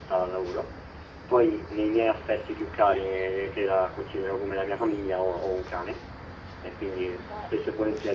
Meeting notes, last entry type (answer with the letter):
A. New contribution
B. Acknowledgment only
B